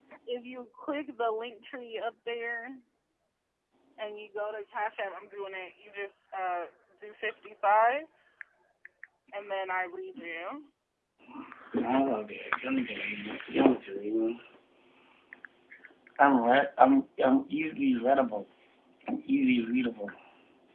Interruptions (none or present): none